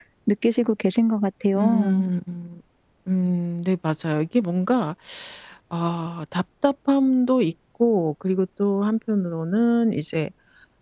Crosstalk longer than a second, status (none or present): none